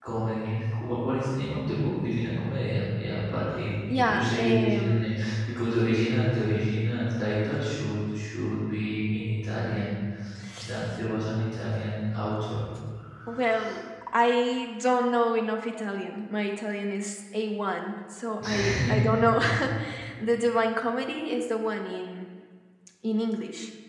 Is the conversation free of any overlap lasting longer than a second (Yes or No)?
No